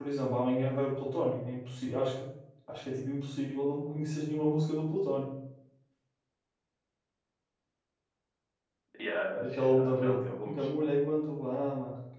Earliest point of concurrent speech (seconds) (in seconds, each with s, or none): 9.4 s